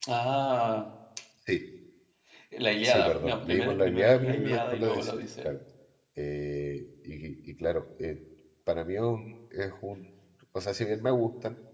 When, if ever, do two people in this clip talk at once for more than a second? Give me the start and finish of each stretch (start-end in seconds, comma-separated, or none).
2.8-5.6